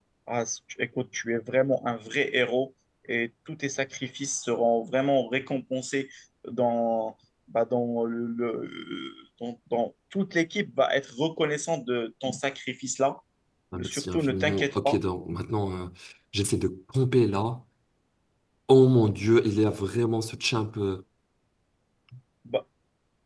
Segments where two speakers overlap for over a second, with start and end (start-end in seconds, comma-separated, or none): 13.7-15.0